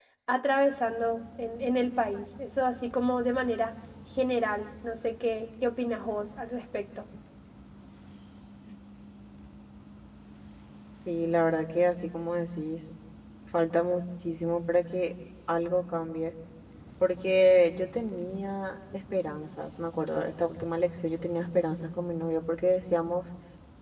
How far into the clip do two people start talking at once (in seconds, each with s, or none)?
none